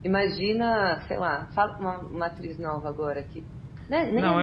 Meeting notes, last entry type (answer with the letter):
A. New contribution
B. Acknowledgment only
A